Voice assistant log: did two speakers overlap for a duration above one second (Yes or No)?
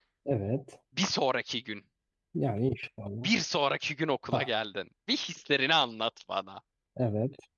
No